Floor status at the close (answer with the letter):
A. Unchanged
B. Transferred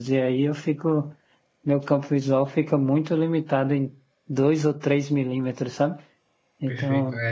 B